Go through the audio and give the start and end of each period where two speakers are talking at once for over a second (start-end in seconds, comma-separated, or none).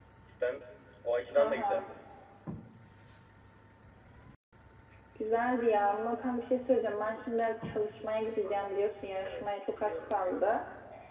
9.2-10.5